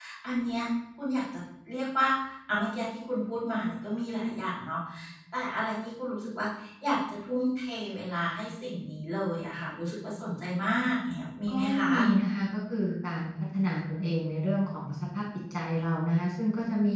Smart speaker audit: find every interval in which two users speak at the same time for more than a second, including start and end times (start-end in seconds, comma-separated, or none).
none